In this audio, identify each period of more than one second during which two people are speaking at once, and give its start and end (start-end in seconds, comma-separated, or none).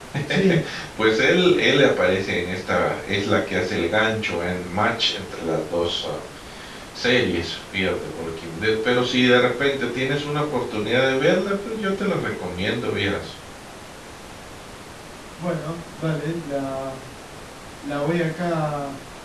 none